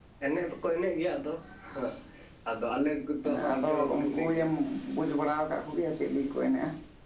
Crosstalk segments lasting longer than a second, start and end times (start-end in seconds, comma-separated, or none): 3.2-4.5